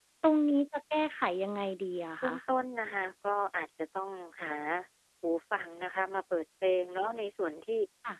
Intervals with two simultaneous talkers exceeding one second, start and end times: none

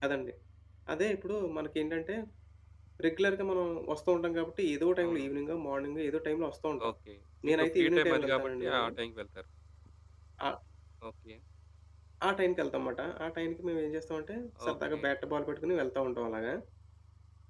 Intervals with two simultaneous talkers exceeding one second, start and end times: 7.5-8.9

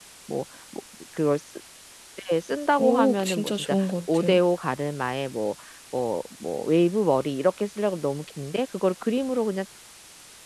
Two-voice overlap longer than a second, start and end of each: 2.8-4.4

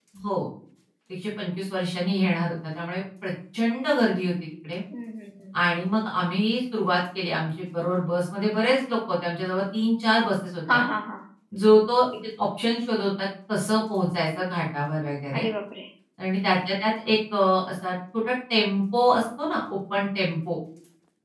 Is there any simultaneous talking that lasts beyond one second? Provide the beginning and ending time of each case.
none

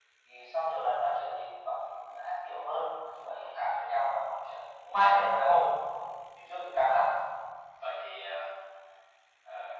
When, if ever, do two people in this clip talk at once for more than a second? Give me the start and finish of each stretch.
none

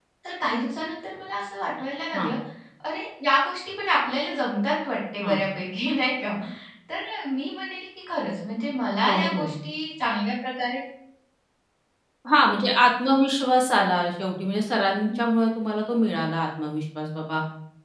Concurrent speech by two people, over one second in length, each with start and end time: none

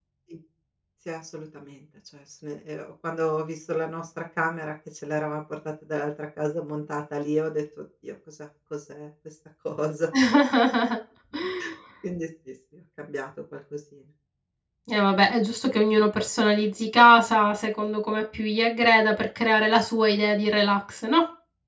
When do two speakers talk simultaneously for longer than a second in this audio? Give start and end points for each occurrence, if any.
none

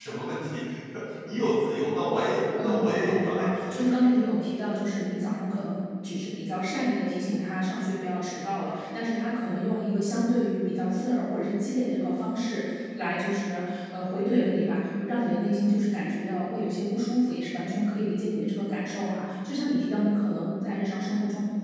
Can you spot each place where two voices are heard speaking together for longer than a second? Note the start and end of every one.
2.6-4.1

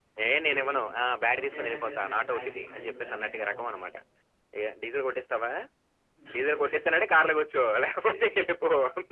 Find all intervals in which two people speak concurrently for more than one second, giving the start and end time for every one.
1.4-3.9

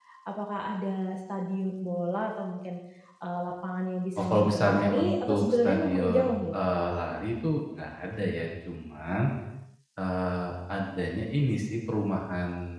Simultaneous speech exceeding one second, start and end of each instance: 4.2-6.5

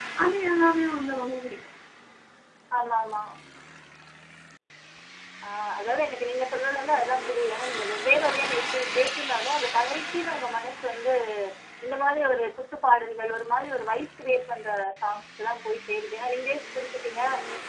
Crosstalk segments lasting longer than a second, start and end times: none

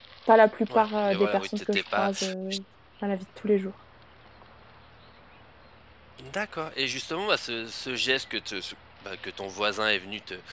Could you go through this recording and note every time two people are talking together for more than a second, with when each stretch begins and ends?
0.7-2.1

